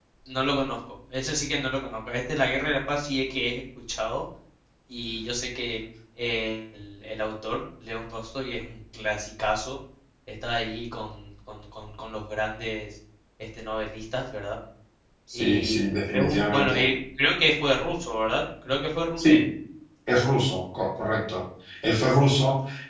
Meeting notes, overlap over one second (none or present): present